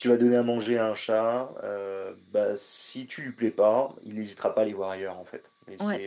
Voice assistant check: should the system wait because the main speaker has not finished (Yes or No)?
Yes